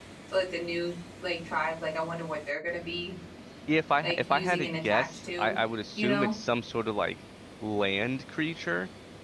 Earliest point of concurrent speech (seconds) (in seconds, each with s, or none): 4.0 s